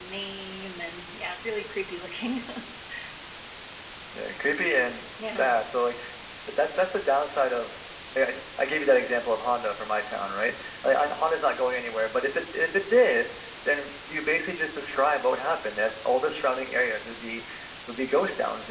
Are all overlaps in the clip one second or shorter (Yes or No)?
Yes